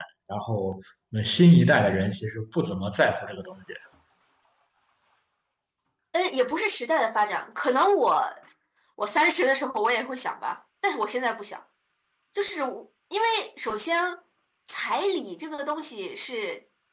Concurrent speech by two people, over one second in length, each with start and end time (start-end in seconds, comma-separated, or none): none